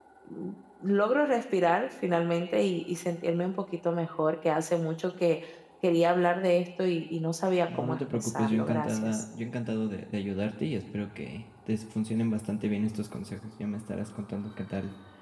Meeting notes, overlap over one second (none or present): present